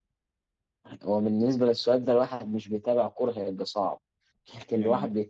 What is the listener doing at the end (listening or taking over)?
listening